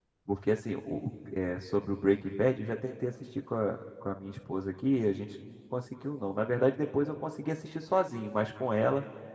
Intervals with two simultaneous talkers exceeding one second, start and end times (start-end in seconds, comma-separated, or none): none